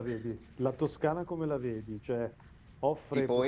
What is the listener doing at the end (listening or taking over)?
taking over